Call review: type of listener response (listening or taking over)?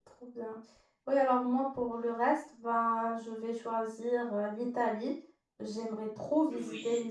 listening